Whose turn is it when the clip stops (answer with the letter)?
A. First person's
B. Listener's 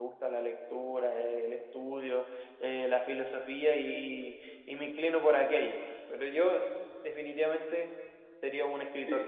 B